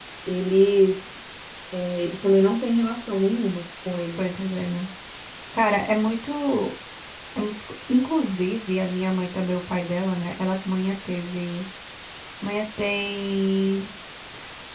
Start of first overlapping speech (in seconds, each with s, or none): none